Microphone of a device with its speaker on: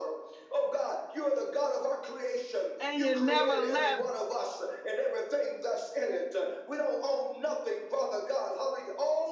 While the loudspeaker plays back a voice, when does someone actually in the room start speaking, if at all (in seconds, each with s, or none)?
2.8 s